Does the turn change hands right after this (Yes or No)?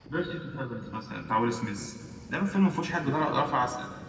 No